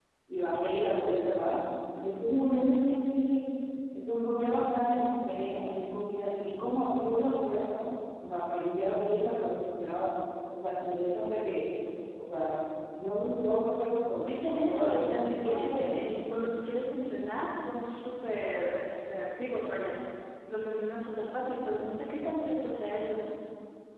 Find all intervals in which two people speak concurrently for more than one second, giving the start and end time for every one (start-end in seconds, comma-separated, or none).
14.3-16.2